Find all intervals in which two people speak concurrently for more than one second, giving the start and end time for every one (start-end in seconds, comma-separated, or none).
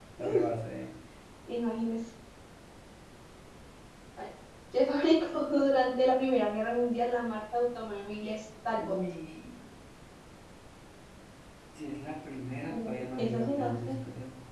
12.7-14.0